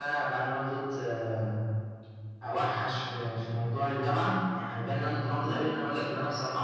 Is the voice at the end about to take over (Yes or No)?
No